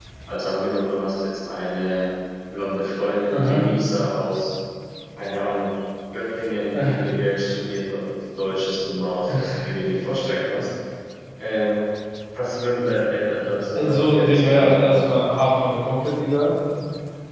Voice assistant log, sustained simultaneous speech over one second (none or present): present